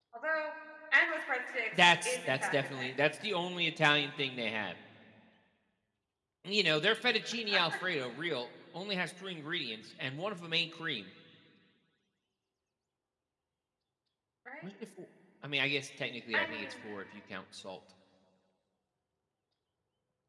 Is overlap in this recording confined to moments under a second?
No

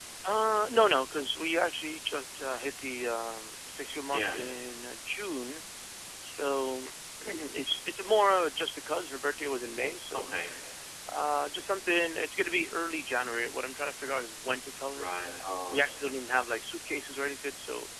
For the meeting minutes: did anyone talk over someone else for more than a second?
No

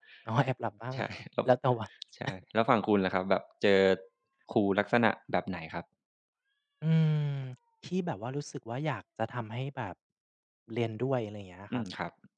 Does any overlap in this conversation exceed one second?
No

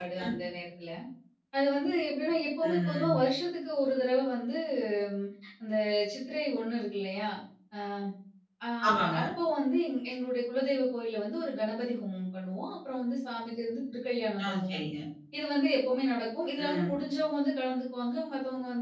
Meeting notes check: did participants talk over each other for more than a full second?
No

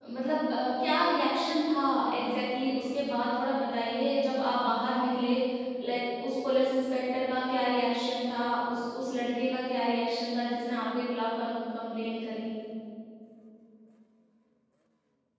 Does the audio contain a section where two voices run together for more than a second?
No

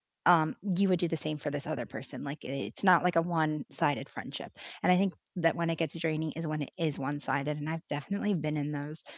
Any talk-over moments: No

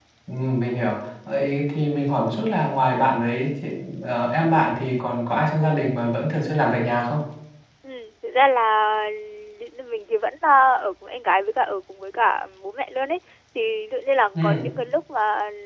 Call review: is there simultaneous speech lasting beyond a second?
No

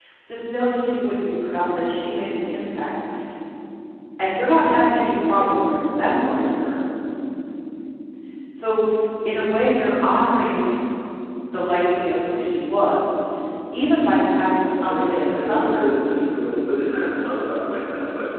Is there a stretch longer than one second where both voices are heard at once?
Yes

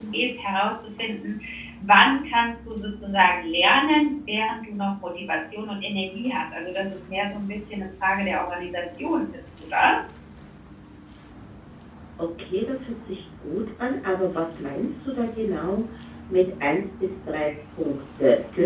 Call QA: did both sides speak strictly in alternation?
Yes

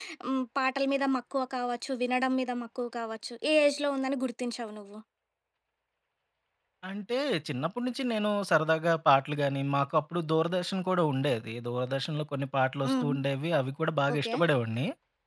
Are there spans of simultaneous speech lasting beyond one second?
No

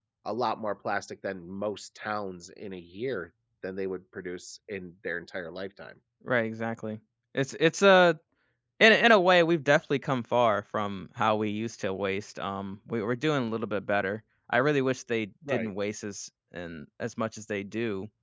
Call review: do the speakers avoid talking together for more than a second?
Yes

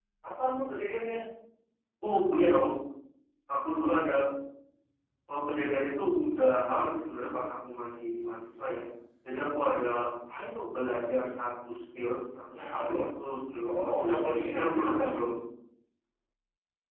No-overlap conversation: No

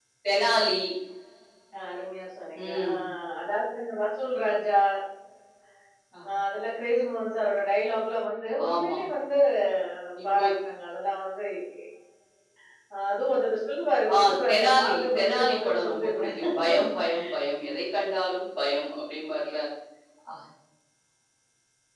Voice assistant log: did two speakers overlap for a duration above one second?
Yes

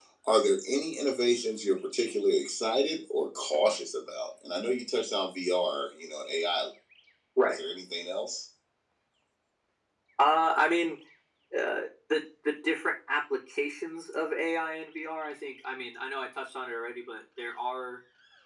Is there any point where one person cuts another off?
No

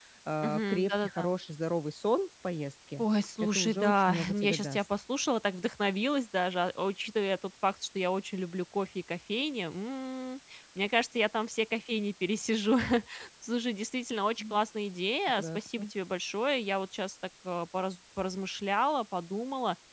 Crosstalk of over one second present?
Yes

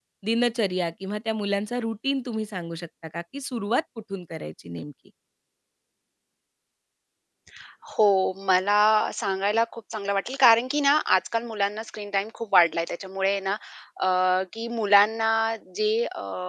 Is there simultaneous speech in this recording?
No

